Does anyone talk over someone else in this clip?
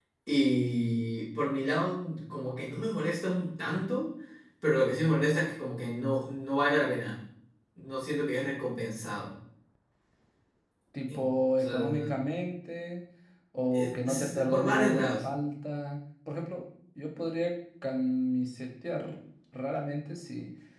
Yes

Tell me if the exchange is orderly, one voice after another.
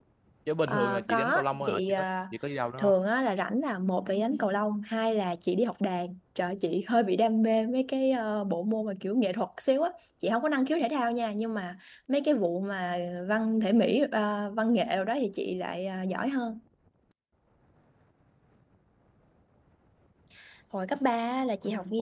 No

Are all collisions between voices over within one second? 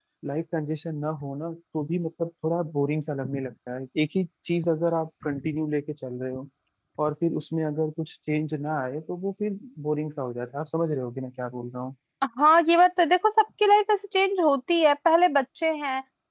Yes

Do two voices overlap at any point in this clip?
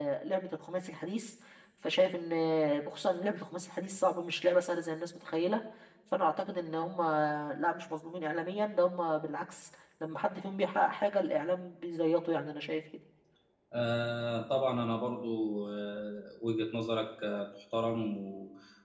No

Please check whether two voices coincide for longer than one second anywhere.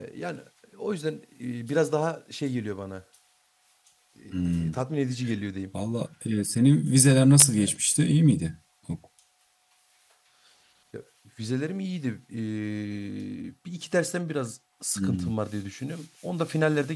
No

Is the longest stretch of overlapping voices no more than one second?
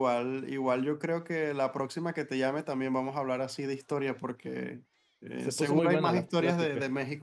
No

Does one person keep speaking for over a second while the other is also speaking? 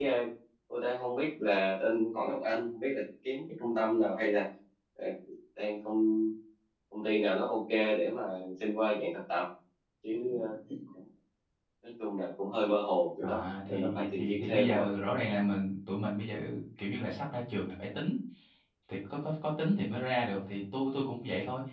Yes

